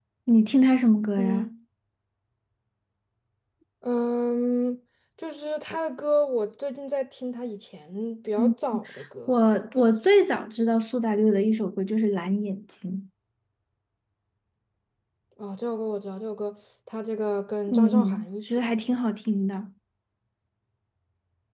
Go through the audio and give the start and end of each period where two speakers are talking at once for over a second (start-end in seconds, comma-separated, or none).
17.7-19.0